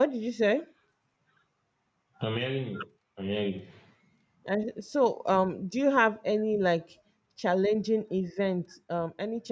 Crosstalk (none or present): none